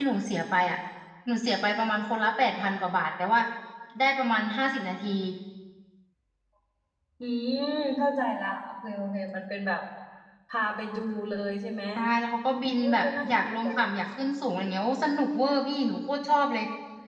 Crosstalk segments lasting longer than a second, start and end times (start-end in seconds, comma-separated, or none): 12.8-14.0